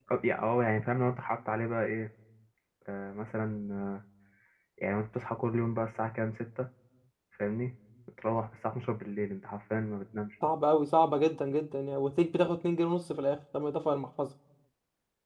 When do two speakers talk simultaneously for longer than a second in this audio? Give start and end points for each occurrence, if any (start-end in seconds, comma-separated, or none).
none